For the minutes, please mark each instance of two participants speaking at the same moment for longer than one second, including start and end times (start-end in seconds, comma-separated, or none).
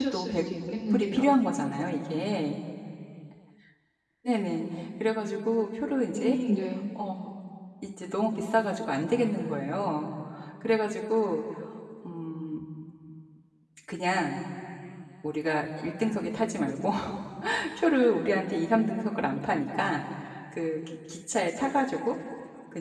none